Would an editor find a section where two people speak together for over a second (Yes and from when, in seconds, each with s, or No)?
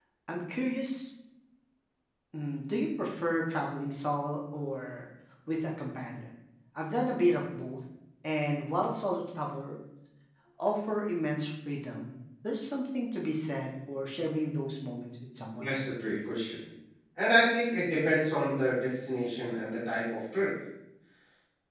No